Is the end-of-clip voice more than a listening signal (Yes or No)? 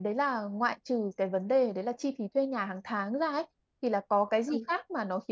No